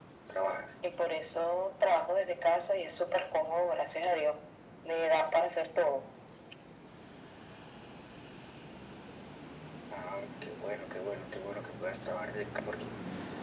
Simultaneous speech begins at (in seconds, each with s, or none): none